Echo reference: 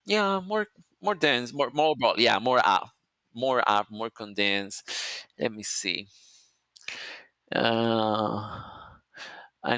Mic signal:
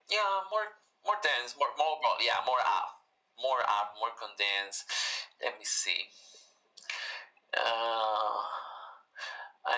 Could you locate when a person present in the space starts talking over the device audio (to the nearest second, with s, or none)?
none